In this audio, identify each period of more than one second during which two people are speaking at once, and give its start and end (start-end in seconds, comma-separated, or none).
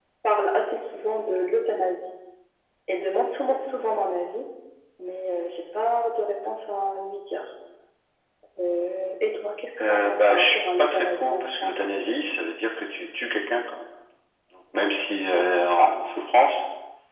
9.8-11.8